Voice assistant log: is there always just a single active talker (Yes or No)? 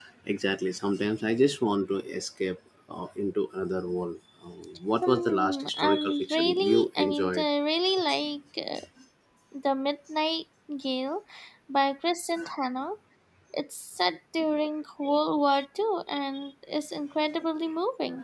No